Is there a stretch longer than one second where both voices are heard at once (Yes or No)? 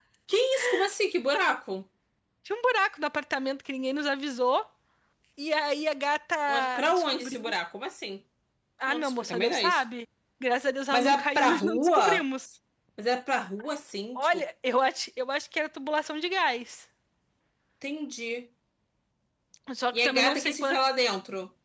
Yes